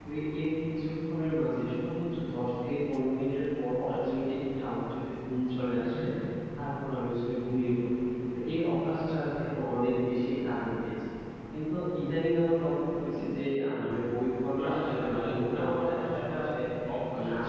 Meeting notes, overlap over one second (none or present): present